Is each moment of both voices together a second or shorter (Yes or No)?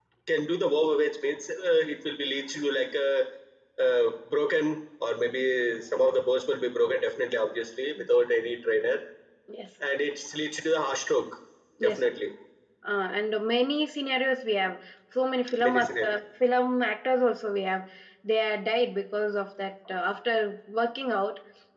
Yes